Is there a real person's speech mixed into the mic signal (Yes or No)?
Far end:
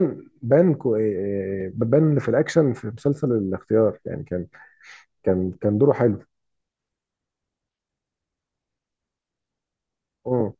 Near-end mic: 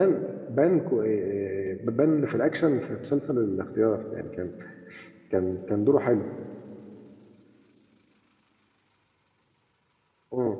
No